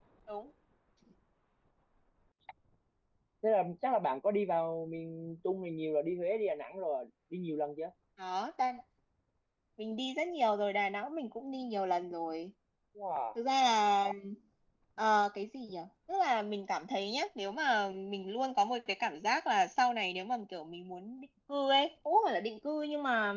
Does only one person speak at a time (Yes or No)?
Yes